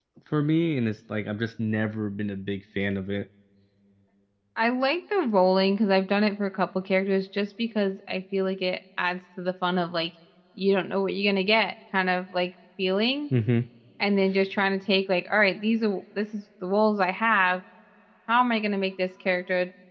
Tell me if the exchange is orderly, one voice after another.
Yes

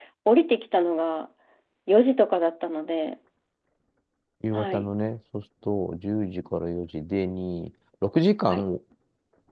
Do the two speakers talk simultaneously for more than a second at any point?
No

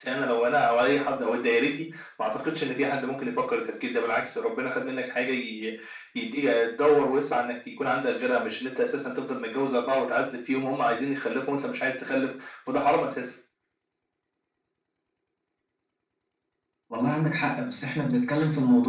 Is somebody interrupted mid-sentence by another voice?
No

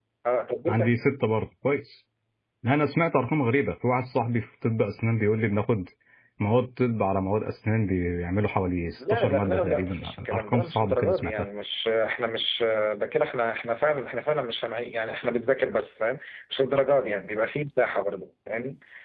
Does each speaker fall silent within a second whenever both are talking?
No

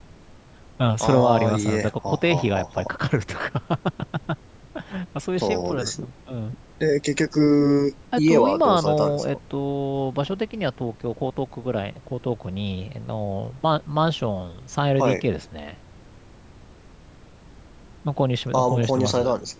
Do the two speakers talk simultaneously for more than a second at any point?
Yes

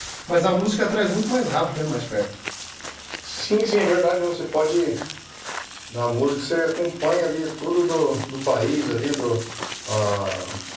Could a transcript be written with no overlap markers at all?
Yes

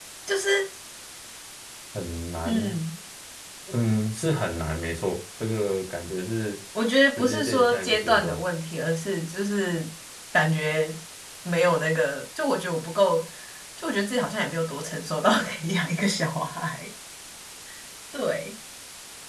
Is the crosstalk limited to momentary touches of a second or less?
No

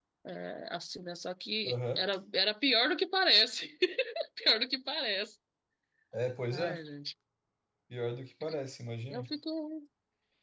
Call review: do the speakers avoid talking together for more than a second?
Yes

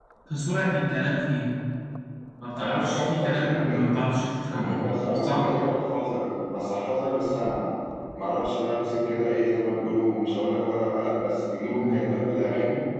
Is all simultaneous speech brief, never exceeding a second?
No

